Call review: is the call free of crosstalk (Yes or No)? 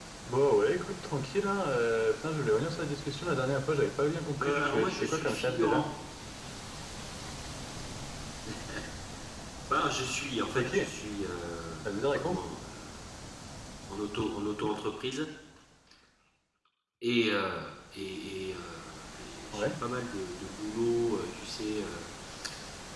No